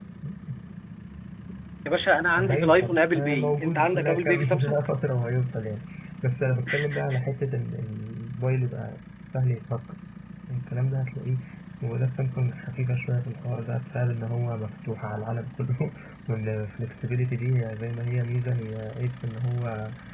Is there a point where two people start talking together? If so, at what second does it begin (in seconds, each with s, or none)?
2.4 s